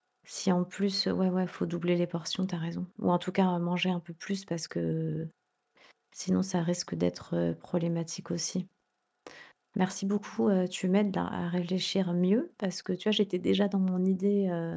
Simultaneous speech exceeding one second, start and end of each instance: none

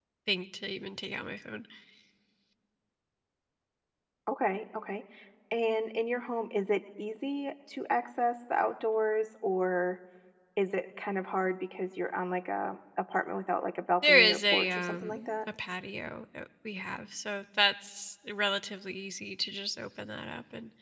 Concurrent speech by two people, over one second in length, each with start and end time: 14.0-15.5

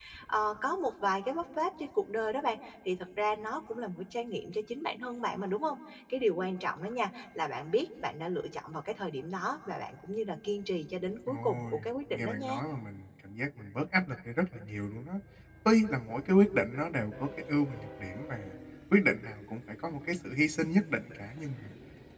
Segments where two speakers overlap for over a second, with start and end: 11.3-12.6

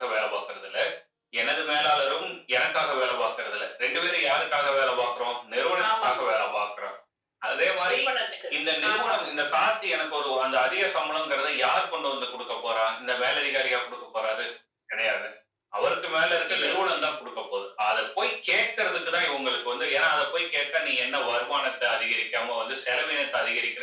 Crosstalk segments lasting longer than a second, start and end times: none

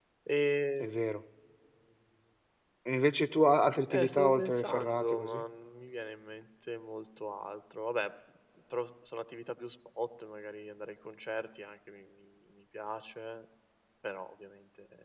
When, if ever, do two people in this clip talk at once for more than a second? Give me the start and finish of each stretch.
3.9-5.4

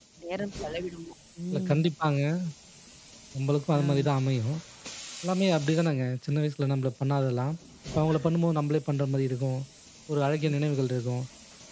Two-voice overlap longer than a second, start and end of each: none

